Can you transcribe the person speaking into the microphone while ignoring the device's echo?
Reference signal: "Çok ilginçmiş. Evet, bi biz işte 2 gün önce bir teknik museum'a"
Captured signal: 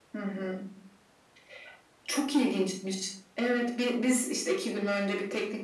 none

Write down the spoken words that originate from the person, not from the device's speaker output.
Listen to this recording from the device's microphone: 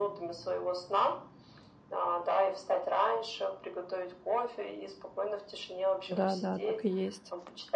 Да, да, так и есть.

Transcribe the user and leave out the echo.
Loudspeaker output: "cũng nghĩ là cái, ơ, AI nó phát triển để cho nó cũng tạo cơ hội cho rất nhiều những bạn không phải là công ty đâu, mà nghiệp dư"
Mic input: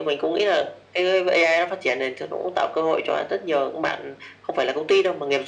none

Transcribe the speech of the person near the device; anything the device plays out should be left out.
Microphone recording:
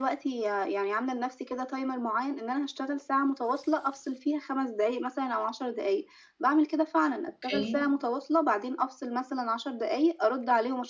أوكي.

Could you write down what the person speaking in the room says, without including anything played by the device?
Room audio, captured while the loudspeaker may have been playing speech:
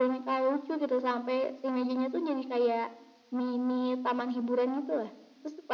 none

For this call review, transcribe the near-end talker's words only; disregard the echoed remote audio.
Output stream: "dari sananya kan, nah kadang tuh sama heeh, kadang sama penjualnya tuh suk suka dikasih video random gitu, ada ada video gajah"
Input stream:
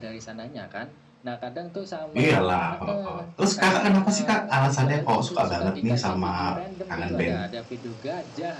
iya lah, heeh. Terus Kakak kenapa sih Kak alasannya kok suka banget nih sama Kangen Band?

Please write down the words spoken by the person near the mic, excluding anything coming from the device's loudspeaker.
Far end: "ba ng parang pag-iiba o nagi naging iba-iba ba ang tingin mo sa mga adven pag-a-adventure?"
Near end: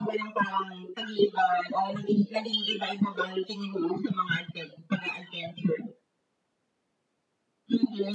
none

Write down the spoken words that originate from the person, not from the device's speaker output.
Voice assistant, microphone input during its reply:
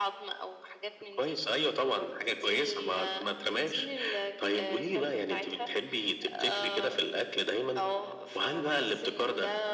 none

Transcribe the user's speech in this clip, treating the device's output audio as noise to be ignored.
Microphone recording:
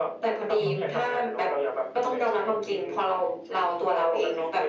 ก็เป็น

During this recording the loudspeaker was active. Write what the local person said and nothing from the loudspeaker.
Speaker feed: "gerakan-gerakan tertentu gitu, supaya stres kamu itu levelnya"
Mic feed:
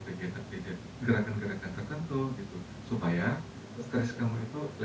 Heeh heeh.

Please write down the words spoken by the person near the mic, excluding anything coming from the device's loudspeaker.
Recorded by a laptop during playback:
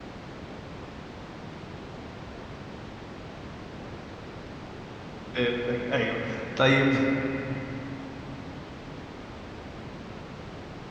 فهمتك أيوه. طيب.

